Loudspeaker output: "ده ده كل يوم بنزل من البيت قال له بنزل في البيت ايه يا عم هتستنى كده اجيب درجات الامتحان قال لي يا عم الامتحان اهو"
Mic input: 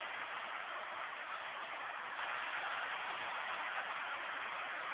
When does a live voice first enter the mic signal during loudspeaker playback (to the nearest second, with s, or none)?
none